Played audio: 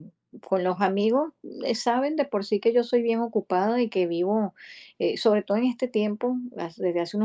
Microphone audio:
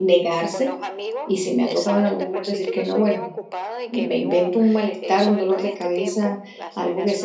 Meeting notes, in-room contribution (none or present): present